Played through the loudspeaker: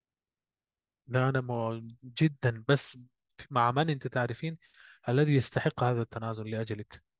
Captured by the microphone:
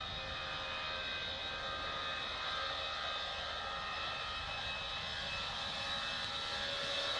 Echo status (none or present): none